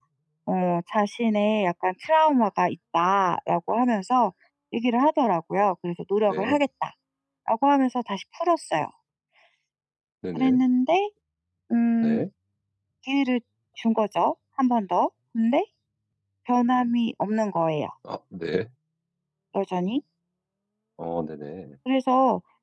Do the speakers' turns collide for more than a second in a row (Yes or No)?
No